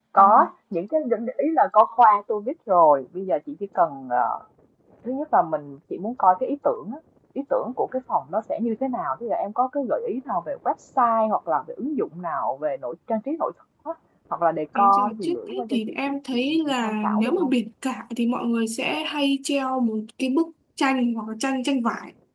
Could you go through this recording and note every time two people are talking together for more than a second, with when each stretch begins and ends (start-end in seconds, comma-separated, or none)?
14.8-17.5